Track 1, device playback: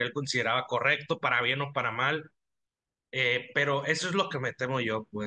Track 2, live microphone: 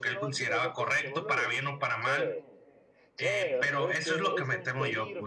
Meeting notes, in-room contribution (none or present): present